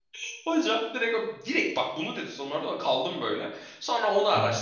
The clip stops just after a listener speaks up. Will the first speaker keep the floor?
Yes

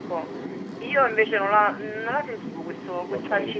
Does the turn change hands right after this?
Yes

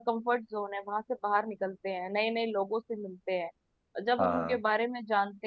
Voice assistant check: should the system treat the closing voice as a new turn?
No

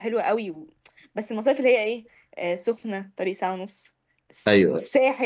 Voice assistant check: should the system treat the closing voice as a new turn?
No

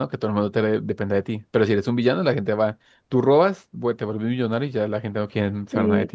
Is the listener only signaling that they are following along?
No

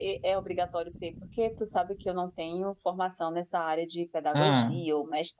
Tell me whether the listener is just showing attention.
Yes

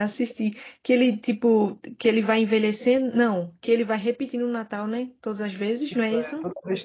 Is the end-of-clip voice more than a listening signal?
Yes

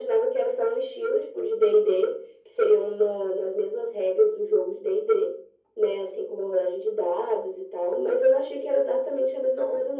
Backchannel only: No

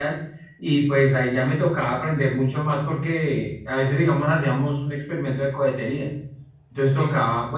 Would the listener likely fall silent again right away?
Yes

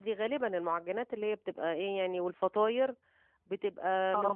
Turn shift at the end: No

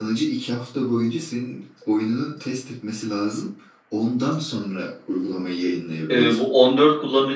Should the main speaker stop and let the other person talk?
Yes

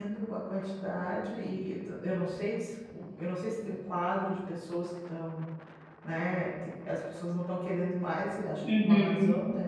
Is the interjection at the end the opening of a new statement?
Yes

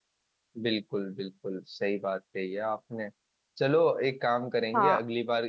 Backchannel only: Yes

